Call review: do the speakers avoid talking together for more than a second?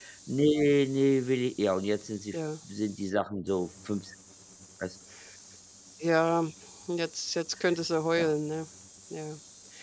Yes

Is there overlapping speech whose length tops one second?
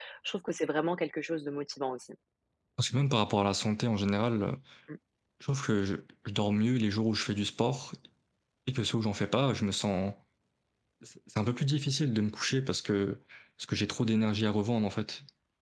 No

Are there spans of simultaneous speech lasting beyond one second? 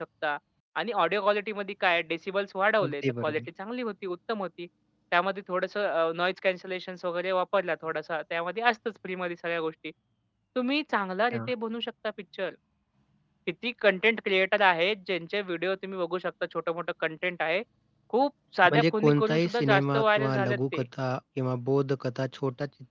Yes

